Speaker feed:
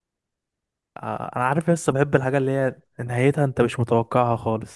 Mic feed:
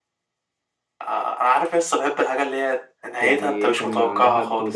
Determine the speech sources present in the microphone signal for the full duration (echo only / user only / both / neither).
both